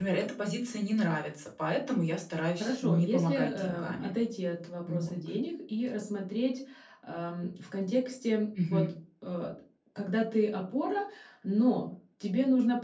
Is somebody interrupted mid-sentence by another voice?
Yes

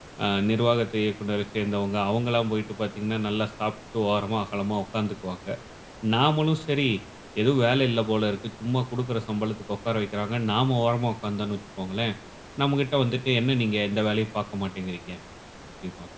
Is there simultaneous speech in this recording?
No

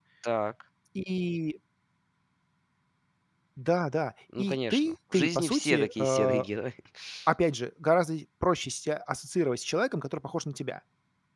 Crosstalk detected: Yes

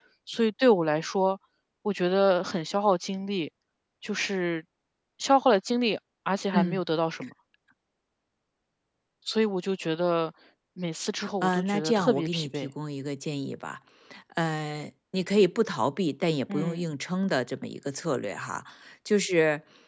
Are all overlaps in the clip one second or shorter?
No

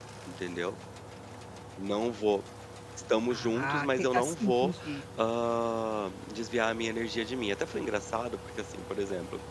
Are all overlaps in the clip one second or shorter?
No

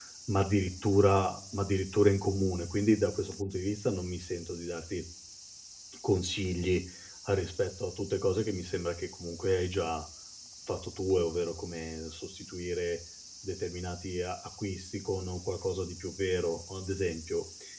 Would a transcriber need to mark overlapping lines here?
No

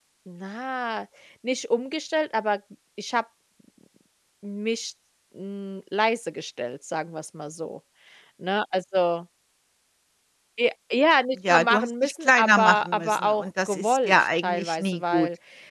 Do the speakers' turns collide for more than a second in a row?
Yes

